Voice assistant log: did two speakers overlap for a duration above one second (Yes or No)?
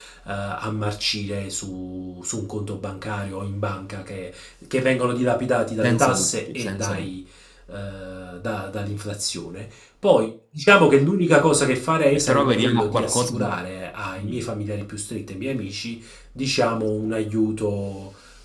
Yes